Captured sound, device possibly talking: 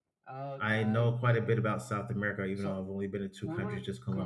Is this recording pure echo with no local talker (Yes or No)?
No